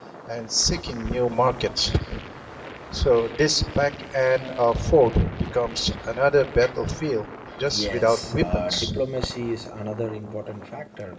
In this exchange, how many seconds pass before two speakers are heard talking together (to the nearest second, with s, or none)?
8 s